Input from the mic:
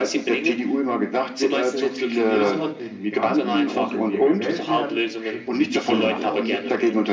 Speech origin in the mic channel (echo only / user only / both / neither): both